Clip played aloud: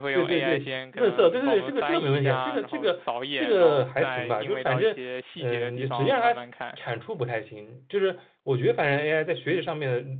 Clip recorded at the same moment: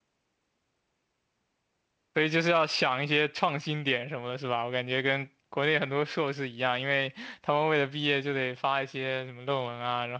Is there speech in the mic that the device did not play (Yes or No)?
Yes